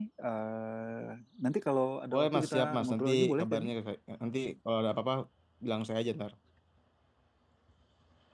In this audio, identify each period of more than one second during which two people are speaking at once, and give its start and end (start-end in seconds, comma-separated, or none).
2.1-3.7